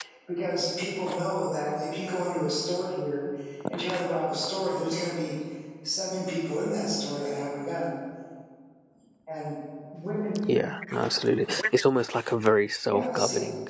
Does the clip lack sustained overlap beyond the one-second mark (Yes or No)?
Yes